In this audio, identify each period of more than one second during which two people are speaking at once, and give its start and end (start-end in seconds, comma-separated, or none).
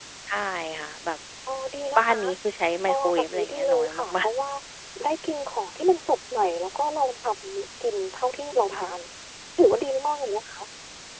2.9-4.3